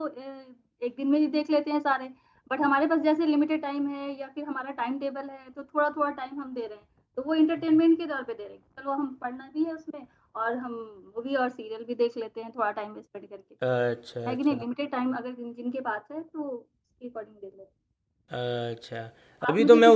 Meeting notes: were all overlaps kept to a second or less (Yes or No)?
Yes